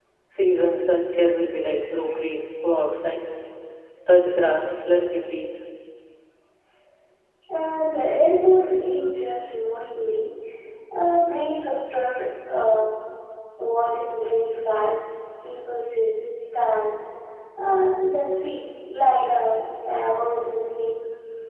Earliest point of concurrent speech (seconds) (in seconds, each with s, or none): none